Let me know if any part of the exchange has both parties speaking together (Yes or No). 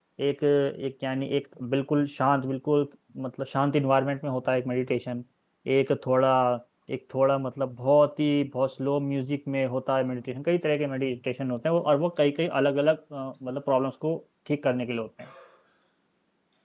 No